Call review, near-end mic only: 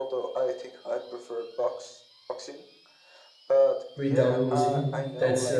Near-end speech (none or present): present